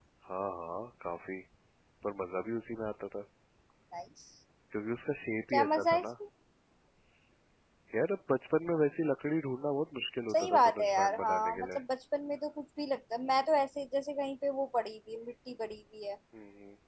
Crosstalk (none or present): present